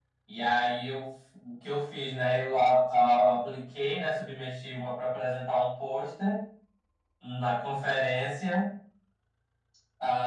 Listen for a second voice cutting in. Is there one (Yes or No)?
No